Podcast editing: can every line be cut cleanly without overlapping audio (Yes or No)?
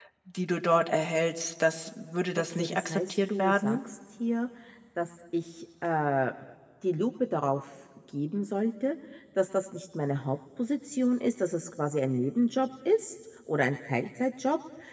No